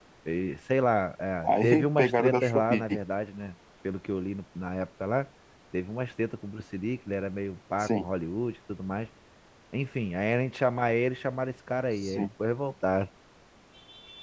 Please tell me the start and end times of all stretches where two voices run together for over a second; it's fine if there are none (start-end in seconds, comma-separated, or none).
1.4-3.0